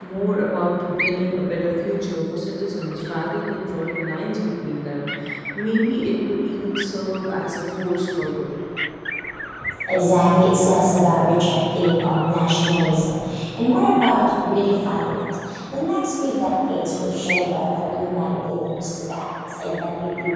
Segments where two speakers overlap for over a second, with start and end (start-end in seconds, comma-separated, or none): none